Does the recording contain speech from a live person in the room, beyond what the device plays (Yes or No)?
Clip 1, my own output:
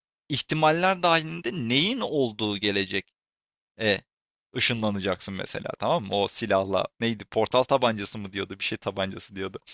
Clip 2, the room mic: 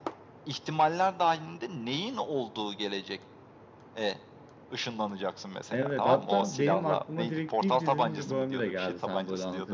Yes